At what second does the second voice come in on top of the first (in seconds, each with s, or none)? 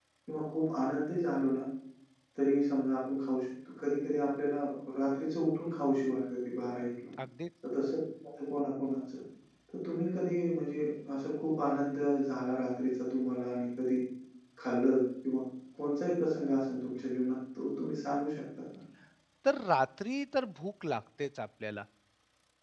none